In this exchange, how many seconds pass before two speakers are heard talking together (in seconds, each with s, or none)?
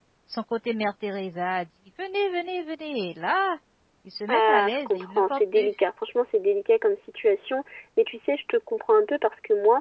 4.3 s